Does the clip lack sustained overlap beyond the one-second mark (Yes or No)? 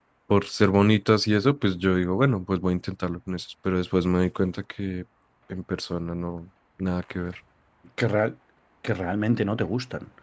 Yes